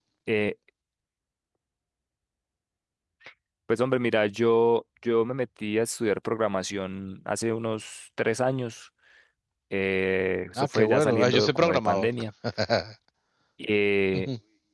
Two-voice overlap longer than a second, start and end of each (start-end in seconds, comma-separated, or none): 10.6-12.1